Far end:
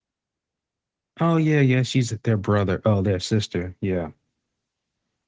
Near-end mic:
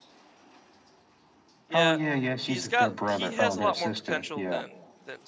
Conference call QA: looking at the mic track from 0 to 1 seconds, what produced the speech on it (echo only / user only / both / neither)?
neither